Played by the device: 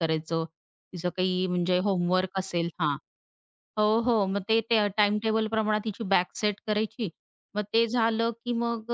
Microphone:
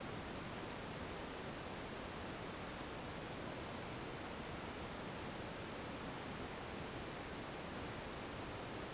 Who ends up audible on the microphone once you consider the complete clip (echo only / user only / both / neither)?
neither